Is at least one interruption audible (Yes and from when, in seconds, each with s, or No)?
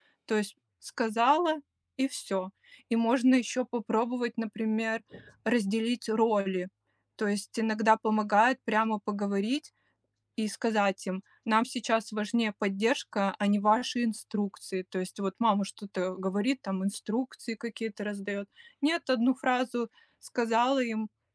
No